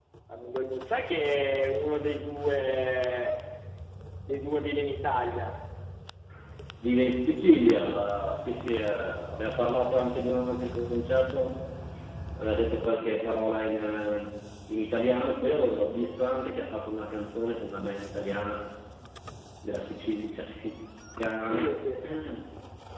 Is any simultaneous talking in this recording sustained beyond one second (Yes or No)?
No